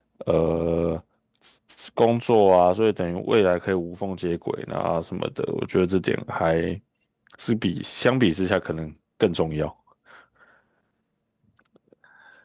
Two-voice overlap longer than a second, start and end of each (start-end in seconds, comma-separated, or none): none